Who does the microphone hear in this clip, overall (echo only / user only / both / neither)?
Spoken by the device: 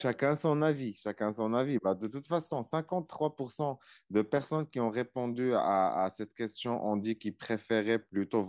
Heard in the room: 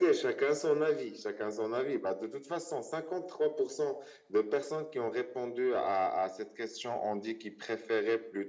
echo only